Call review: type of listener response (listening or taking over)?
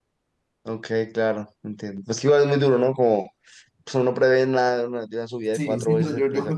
taking over